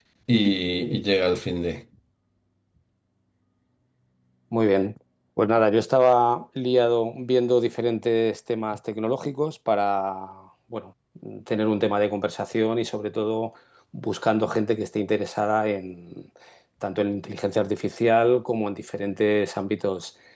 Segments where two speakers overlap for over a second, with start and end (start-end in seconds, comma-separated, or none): none